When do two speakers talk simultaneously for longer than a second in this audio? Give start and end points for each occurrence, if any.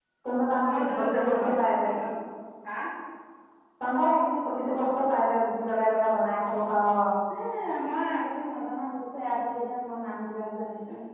0.7-1.9

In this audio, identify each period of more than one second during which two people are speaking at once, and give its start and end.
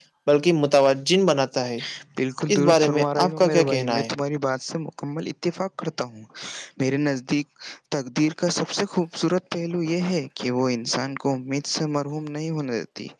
2.5-4.1

